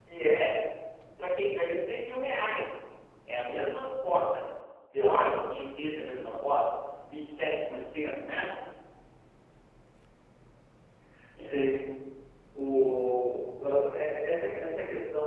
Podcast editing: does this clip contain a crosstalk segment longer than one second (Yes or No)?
No